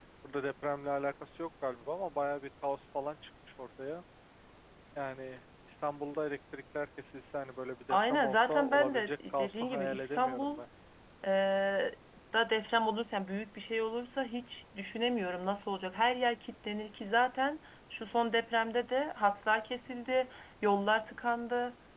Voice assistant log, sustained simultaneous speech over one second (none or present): present